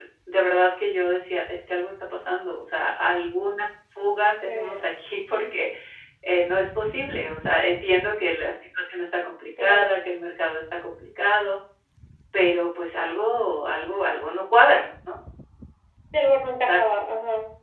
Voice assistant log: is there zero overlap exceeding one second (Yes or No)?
Yes